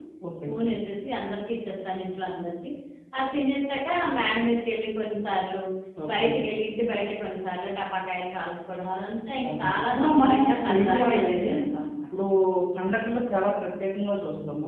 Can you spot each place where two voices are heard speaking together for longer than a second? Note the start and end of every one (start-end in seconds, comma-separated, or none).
9.4-11.5